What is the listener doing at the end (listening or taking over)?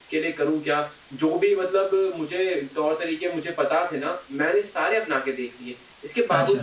listening